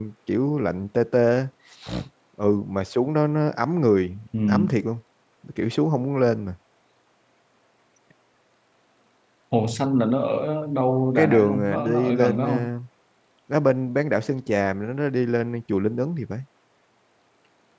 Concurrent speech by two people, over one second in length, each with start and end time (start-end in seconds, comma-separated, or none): 11.2-12.7